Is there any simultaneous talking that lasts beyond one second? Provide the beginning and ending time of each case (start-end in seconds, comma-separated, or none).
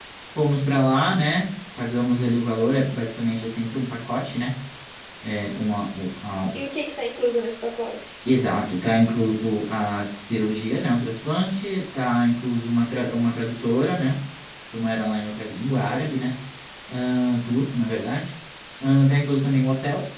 none